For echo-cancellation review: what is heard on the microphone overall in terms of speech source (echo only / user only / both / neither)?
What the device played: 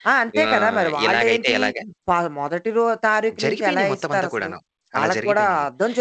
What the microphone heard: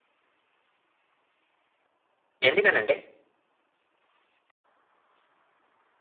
user only